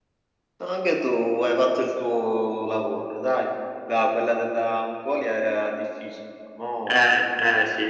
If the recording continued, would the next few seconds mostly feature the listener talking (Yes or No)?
Yes